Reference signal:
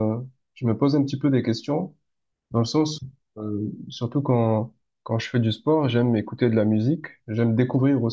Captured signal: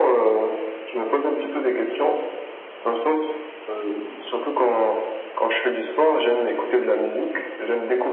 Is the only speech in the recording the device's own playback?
Yes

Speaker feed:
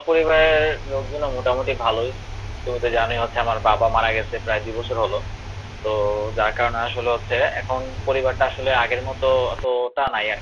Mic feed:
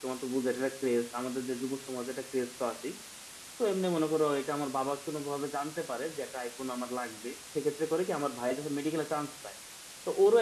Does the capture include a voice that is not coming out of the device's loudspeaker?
Yes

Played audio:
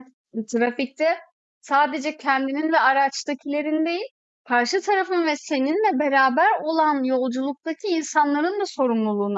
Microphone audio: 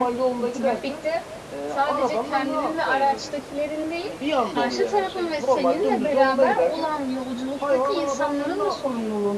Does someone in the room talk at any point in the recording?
Yes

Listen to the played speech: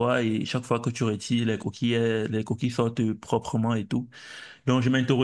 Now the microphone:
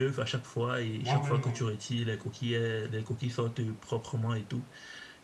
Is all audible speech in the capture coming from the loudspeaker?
No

